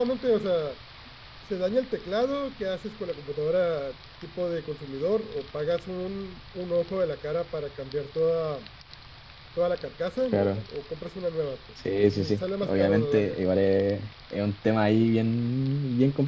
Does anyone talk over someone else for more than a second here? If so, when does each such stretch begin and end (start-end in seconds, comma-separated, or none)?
12.0-13.4